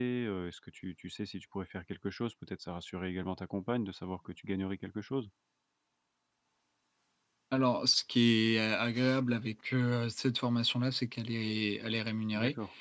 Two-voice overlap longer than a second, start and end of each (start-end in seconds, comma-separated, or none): none